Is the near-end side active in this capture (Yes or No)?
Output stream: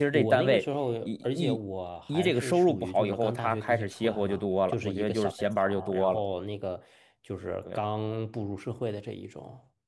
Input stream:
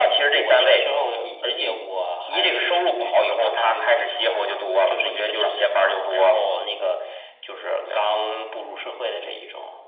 No